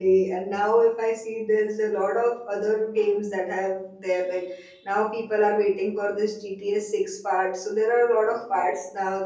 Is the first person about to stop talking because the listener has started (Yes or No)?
No